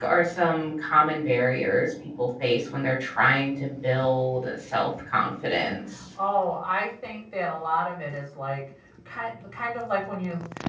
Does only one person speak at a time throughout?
Yes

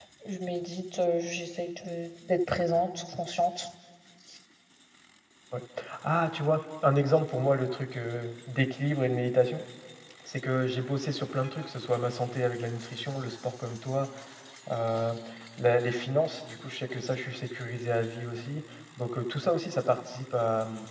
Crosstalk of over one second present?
No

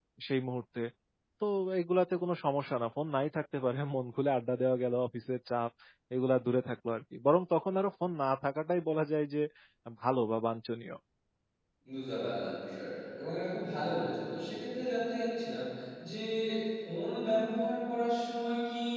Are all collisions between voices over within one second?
Yes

